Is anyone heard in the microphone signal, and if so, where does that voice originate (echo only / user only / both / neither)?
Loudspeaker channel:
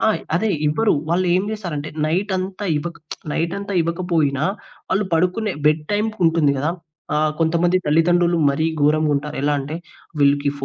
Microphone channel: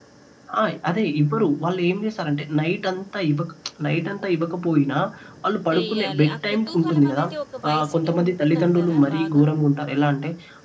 both